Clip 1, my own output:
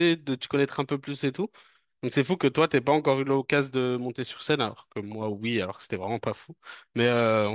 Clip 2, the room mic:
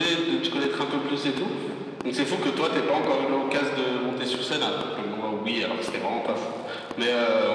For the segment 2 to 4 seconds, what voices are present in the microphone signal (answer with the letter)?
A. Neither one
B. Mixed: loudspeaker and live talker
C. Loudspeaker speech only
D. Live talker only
C